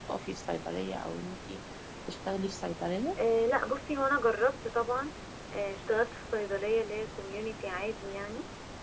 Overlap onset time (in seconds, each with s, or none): none